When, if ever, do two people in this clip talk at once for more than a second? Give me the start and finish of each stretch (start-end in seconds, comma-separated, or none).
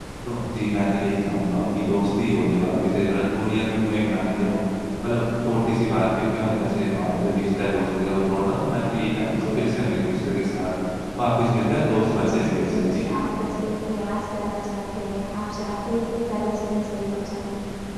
11.6-13.1